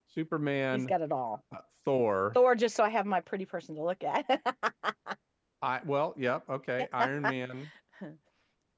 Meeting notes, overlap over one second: none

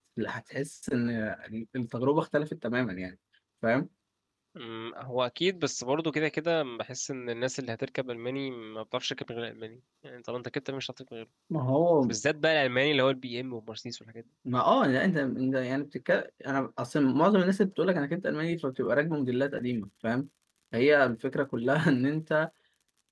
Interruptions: none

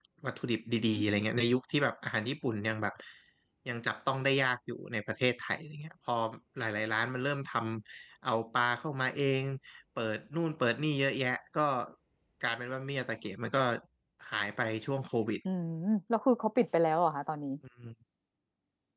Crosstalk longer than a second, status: none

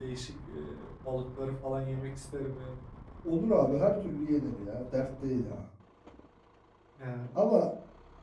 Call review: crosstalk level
none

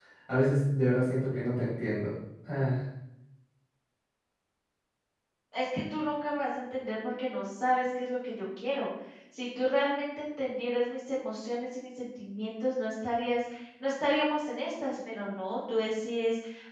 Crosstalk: none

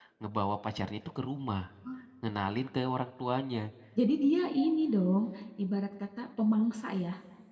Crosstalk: none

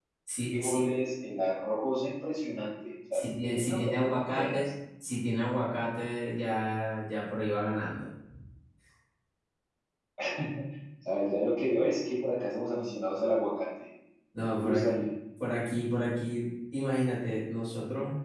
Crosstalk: present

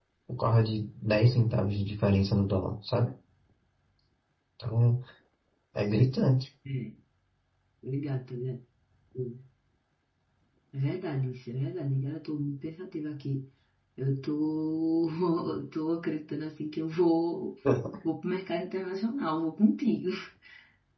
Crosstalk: none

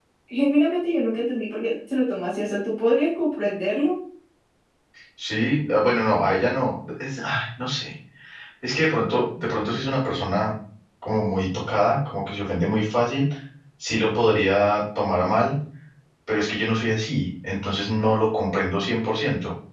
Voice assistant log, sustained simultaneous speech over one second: none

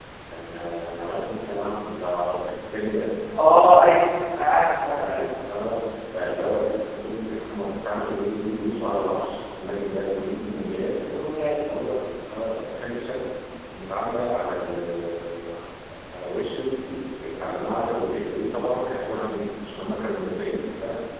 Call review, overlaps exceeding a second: none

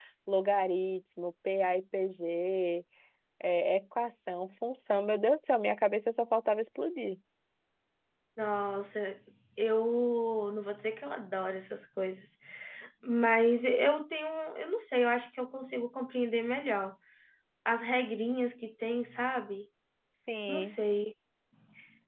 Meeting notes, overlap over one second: none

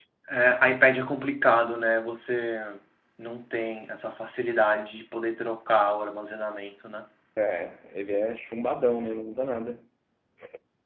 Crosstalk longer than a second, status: none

